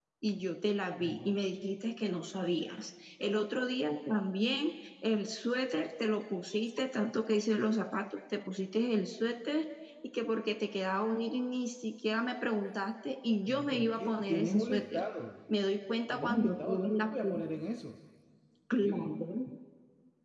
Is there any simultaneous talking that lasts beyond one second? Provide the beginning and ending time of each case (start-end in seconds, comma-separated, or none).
13.5-15.0, 16.1-17.4